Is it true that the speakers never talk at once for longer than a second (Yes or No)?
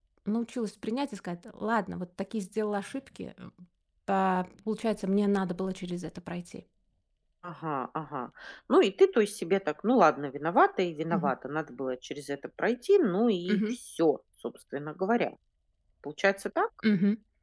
Yes